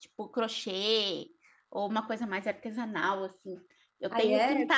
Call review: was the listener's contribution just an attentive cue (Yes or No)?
Yes